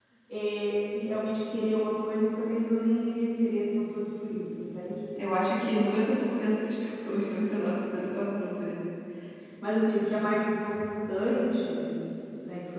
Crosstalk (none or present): none